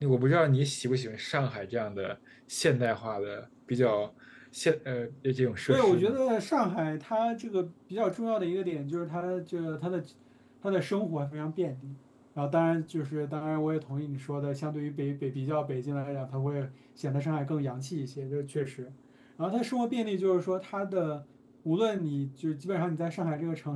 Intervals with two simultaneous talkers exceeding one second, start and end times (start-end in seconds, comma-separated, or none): none